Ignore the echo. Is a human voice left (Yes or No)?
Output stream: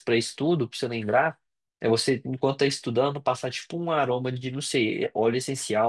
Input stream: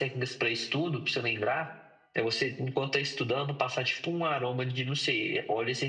No